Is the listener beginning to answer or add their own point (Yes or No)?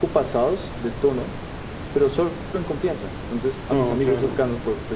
No